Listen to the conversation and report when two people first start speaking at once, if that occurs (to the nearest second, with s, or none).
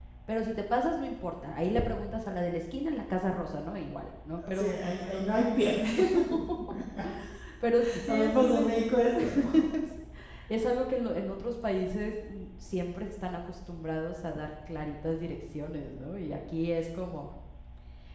4 s